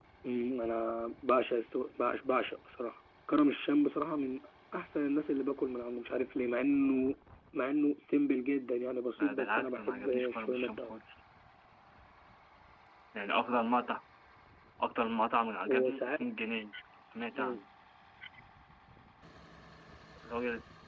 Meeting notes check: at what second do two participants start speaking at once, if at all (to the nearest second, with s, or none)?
9 s